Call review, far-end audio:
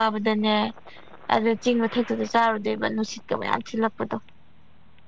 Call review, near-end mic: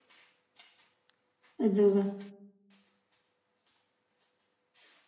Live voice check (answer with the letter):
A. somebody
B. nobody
A